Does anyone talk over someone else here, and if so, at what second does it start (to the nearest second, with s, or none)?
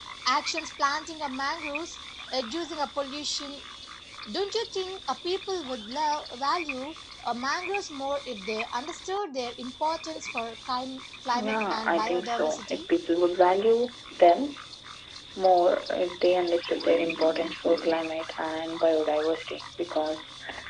11 s